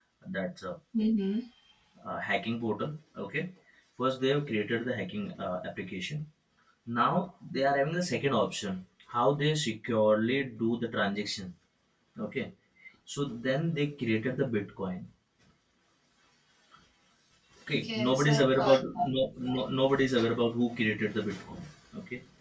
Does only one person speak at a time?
No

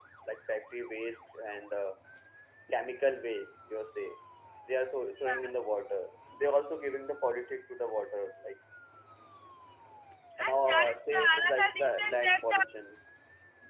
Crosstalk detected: Yes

